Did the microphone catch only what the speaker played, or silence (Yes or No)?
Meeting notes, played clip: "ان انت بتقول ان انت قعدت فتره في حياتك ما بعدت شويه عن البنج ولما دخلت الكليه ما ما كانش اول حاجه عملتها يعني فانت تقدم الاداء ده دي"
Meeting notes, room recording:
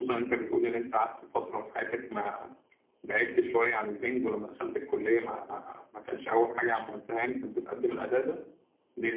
Yes